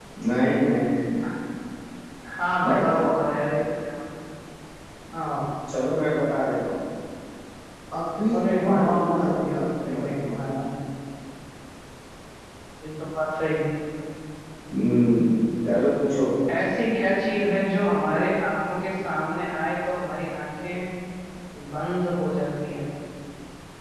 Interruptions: present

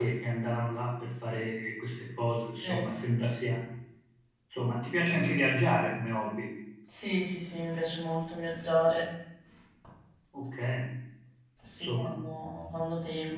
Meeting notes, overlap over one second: none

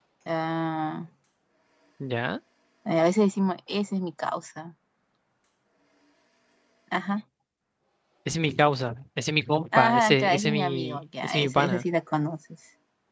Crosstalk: present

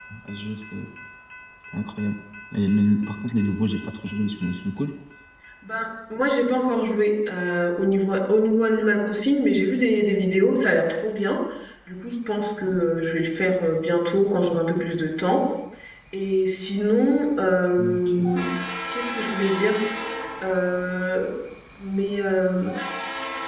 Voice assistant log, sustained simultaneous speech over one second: none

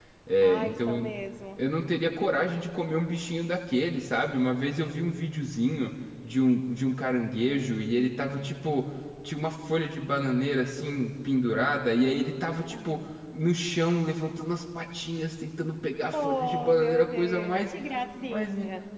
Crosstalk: present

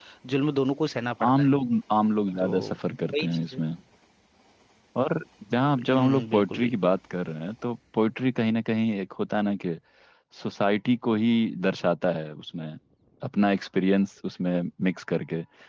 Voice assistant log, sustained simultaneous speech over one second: present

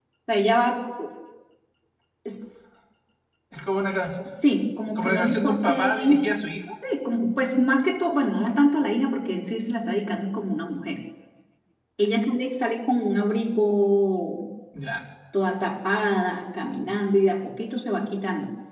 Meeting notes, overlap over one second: present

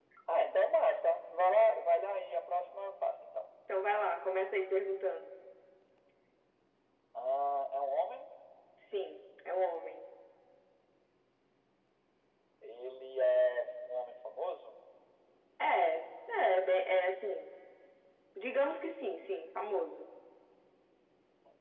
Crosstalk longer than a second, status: none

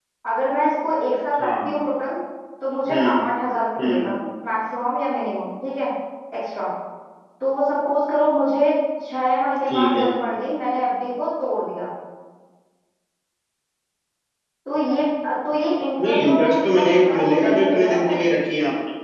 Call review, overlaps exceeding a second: present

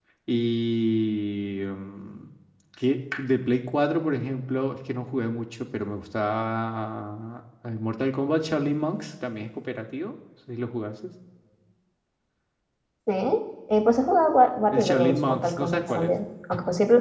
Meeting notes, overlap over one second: present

